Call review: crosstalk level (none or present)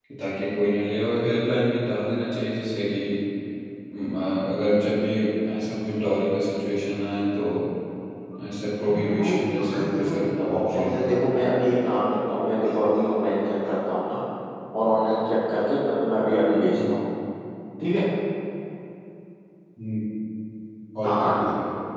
present